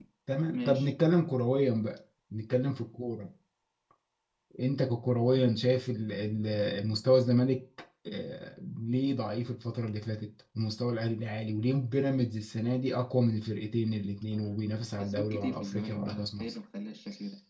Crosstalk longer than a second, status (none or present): present